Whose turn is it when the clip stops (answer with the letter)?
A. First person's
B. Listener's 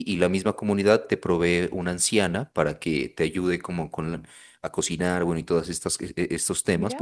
B